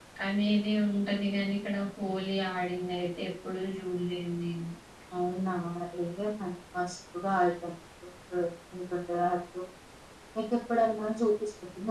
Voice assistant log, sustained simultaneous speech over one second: none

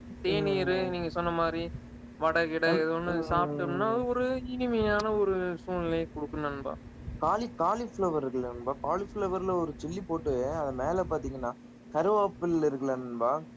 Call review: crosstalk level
present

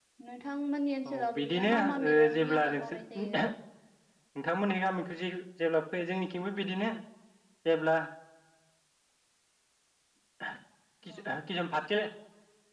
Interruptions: present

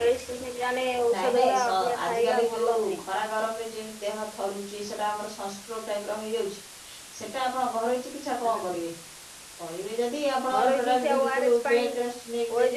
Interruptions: present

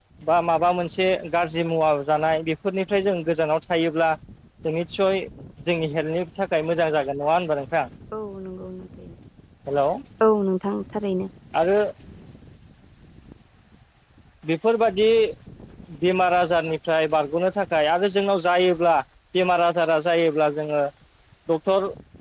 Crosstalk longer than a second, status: none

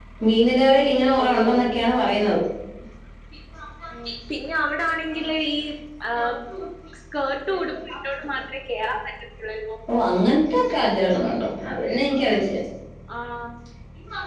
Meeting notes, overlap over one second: none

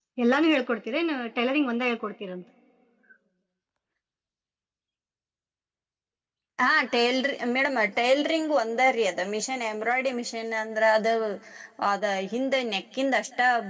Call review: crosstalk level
none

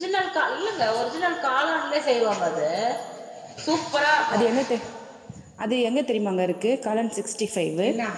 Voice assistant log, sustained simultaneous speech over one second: none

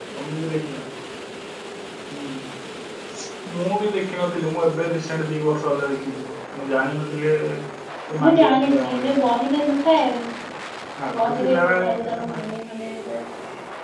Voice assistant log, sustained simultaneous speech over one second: present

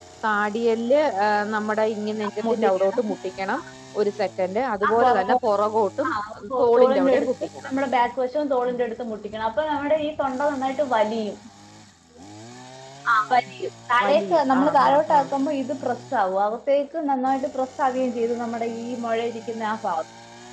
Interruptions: present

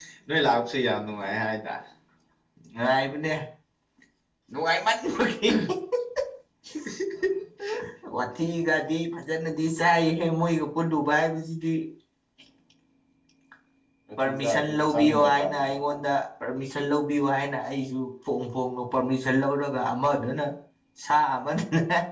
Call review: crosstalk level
present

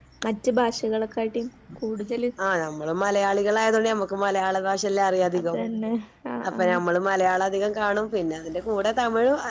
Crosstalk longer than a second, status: none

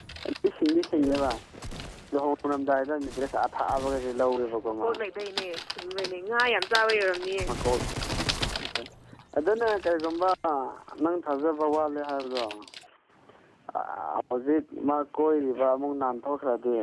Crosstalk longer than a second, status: none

